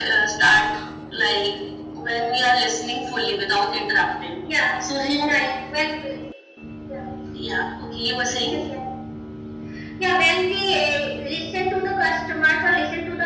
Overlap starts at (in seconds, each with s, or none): none